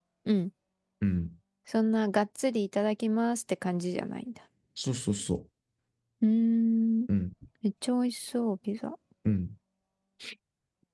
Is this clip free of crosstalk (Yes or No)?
Yes